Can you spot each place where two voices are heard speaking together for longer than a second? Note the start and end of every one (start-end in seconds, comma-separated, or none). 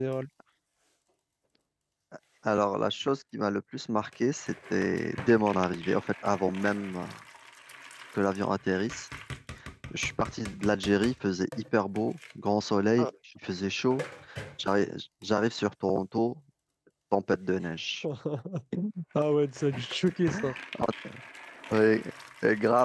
none